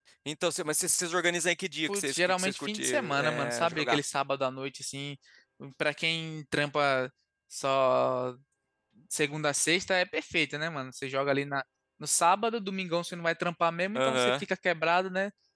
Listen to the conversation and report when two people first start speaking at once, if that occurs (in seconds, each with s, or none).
1.9 s